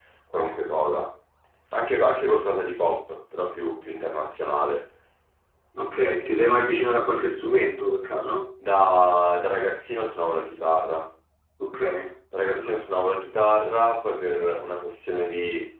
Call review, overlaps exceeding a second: none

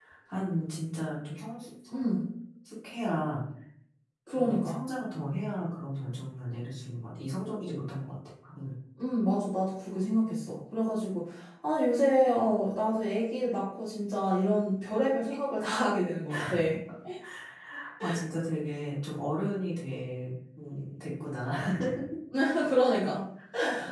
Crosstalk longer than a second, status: none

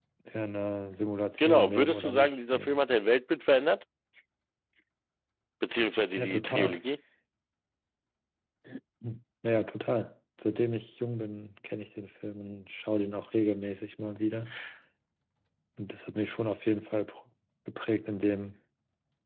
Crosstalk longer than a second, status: present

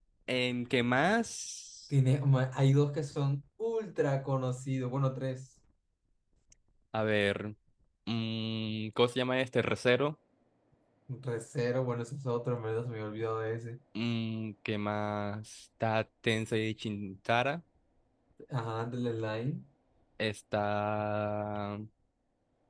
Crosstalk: none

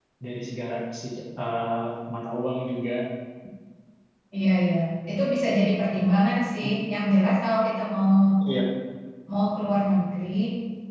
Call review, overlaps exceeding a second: none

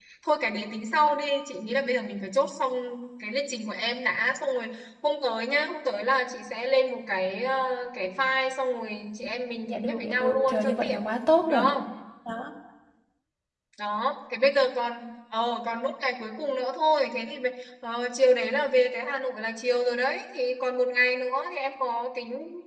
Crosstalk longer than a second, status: present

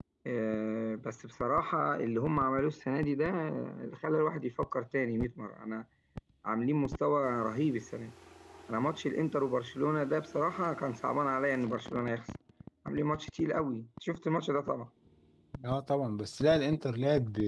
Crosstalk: none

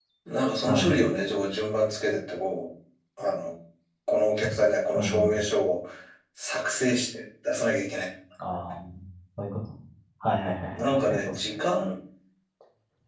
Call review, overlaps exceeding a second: present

